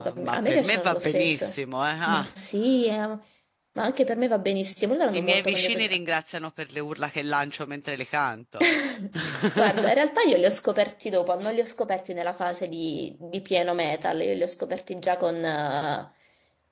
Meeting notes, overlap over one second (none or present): present